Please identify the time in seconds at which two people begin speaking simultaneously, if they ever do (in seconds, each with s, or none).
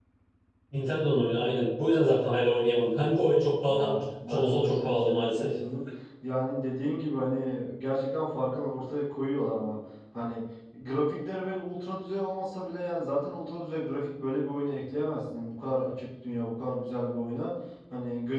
3.7 s